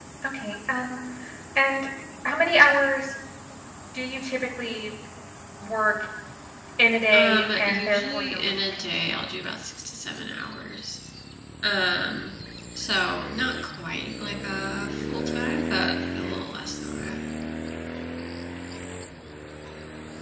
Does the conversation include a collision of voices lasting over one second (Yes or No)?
Yes